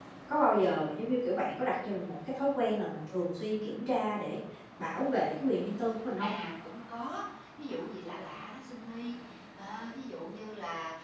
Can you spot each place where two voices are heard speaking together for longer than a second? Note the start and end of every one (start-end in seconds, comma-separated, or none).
none